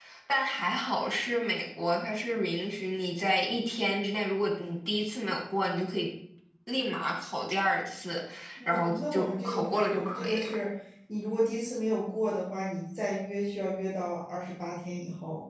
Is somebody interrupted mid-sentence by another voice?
Yes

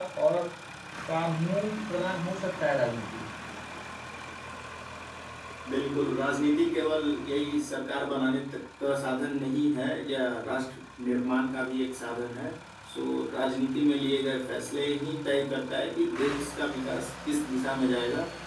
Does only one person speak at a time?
Yes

